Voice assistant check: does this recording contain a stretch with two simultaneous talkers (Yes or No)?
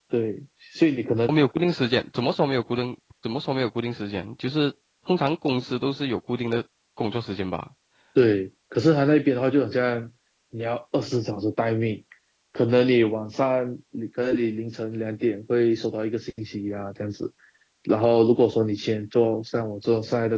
No